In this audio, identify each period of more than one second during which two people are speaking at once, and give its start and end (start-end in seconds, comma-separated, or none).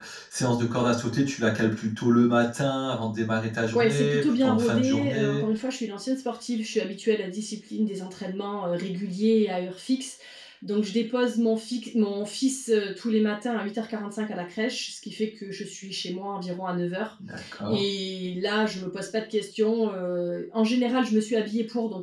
3.8-5.4